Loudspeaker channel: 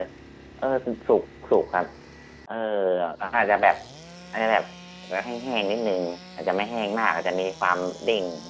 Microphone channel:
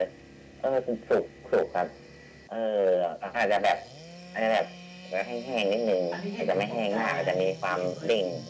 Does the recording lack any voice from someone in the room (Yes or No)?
No